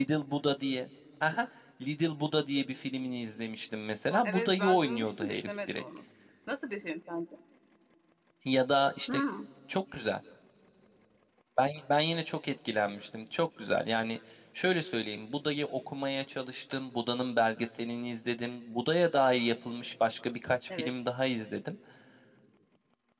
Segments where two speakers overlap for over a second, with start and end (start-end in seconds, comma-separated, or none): 4.1-5.8